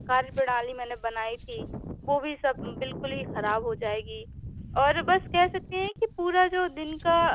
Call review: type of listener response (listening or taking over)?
listening